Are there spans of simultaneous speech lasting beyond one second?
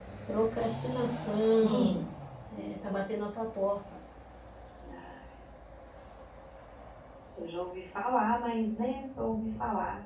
No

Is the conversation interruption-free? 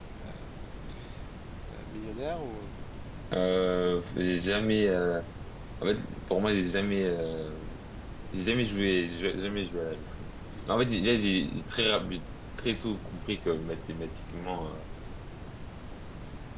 Yes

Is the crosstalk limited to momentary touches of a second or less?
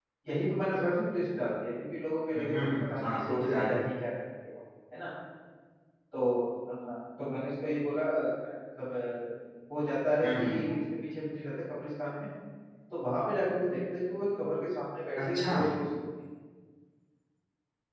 No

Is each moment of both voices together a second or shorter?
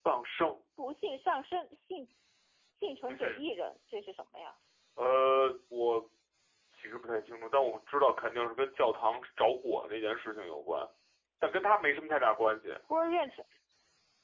Yes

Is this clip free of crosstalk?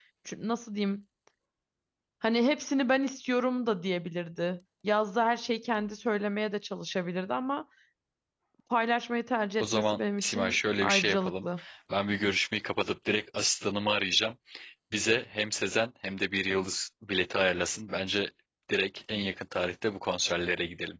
No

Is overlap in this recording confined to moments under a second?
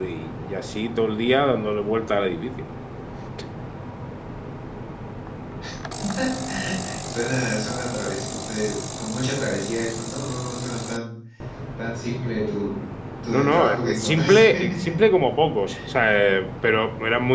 No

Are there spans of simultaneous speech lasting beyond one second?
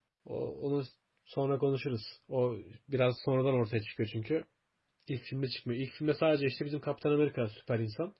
No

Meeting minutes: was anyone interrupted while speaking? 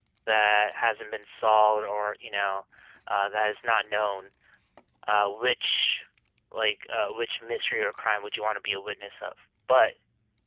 No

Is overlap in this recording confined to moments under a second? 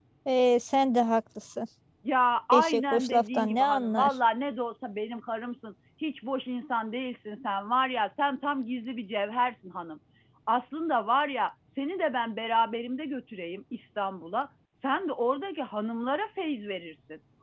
No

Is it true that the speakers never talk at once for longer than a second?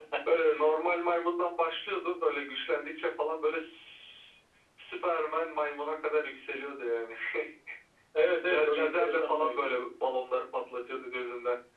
No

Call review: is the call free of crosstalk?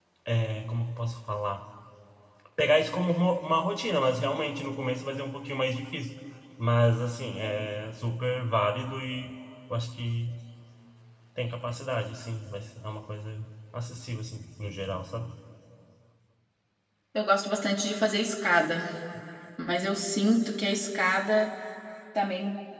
Yes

